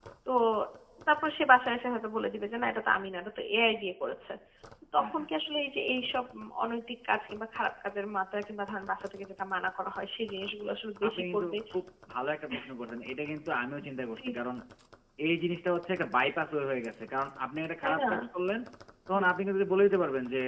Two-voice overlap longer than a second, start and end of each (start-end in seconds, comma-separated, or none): none